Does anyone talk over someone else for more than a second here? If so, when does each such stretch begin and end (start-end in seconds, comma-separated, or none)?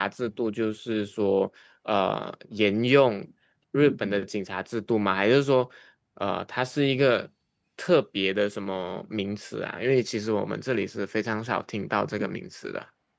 none